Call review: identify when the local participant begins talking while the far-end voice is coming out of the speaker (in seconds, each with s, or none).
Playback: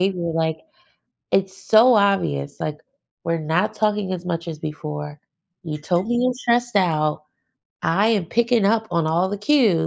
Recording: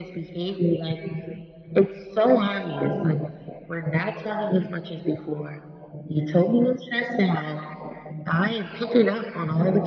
none